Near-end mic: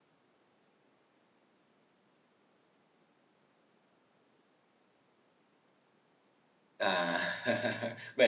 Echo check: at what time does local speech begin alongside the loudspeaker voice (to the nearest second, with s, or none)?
7 s